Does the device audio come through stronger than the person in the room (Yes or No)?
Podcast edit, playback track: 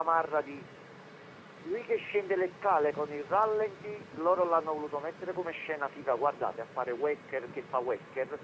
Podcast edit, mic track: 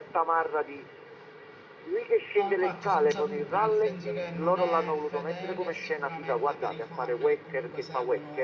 Yes